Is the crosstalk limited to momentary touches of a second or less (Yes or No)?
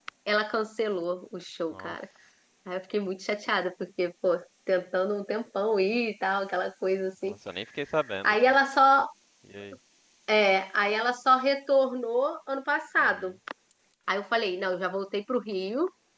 Yes